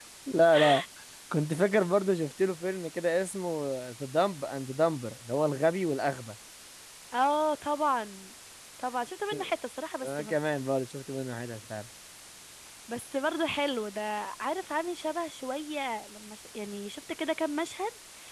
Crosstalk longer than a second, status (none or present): none